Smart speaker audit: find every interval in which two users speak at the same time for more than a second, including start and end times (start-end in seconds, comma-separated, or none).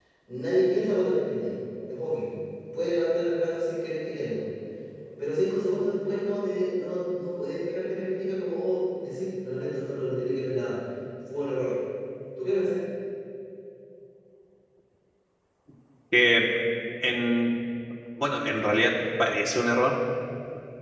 none